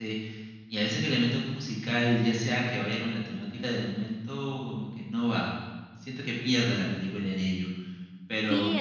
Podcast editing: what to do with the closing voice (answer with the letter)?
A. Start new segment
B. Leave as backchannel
A